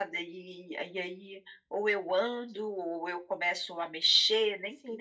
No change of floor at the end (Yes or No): No